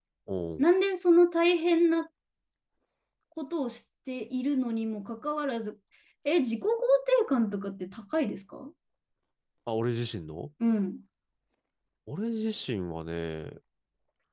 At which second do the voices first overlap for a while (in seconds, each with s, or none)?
none